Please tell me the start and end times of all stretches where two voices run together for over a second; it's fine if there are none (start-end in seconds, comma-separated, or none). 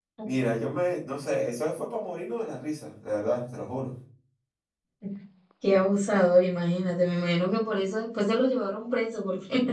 none